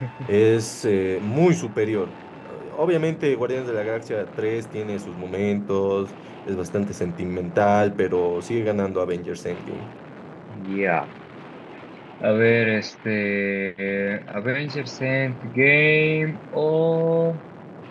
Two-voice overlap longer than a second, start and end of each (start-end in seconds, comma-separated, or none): none